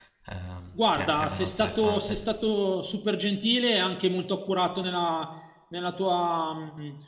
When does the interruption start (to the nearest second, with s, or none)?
1 s